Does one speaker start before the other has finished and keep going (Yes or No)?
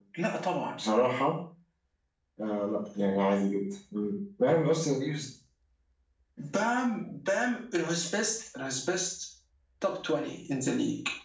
No